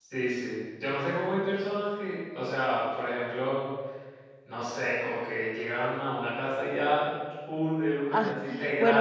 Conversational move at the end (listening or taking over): taking over